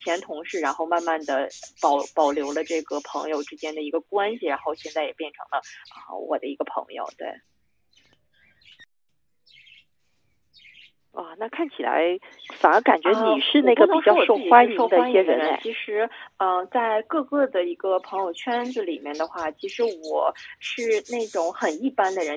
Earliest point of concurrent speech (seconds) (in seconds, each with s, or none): 13.0 s